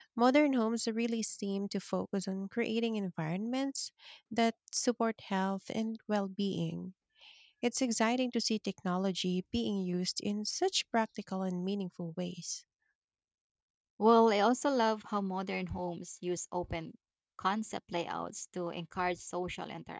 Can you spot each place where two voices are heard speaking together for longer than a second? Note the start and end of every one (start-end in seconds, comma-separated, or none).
none